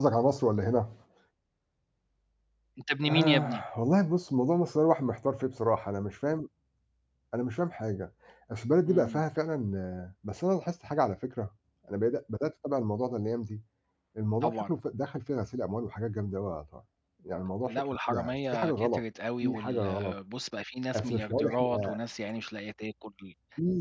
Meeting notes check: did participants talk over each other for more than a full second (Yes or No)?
Yes